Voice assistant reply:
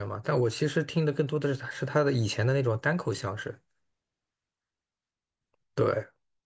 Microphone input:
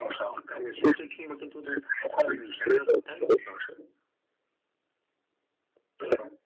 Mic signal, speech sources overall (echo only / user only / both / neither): echo only